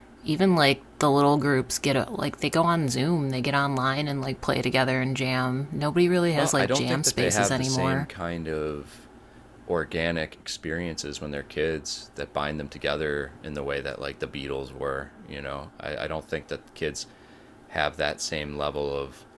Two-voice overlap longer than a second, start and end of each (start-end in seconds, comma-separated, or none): 6.4-8.1